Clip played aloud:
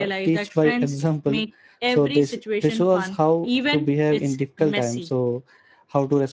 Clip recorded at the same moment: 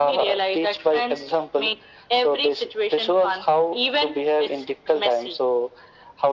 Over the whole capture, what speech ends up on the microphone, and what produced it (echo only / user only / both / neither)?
echo only